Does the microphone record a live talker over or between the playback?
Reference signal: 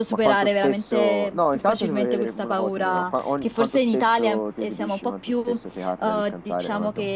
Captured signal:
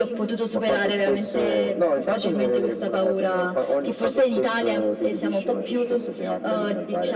Yes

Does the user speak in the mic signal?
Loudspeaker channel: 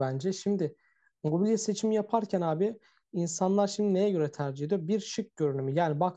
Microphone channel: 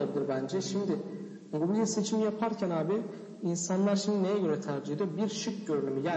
No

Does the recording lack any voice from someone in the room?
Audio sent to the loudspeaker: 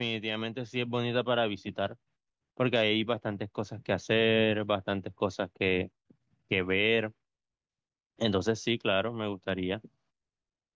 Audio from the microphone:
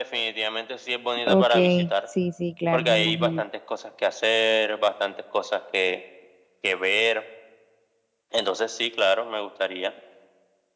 No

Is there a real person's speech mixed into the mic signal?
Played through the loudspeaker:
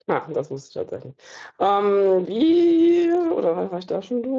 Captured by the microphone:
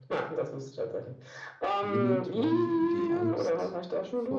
Yes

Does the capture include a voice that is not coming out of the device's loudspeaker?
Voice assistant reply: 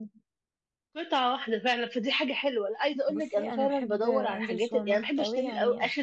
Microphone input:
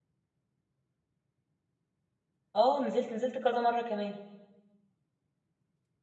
Yes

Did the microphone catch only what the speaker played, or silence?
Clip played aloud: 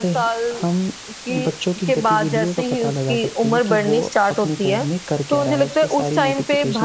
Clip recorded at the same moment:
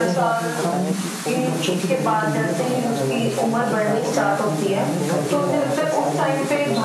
No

